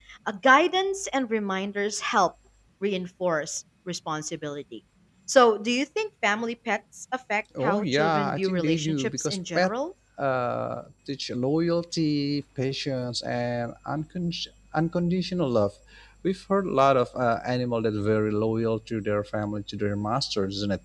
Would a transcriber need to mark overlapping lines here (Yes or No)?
Yes